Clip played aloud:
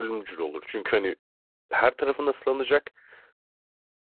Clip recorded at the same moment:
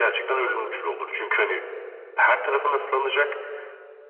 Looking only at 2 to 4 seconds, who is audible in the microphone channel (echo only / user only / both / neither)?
echo only